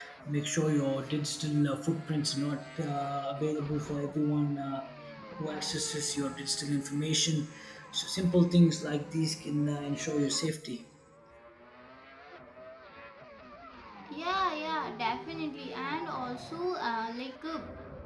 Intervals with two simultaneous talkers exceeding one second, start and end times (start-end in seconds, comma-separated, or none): none